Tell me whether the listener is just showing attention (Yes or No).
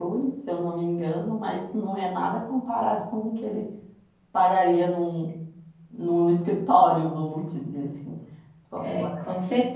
No